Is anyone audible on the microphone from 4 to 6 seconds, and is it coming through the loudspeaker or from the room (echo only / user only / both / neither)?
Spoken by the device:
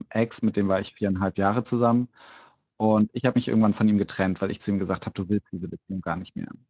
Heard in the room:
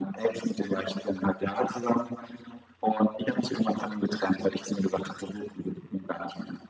echo only